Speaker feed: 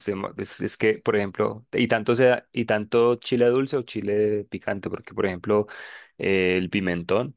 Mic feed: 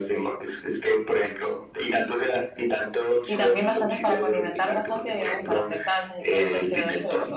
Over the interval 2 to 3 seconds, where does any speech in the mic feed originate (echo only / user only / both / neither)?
echo only